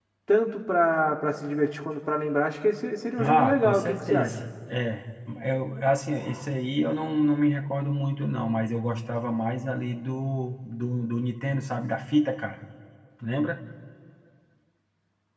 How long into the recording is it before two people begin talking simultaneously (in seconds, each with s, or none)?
3.2 s